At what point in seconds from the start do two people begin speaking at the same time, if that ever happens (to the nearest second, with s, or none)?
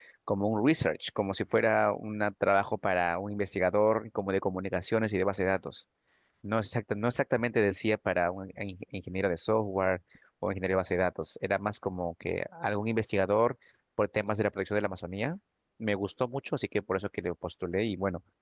none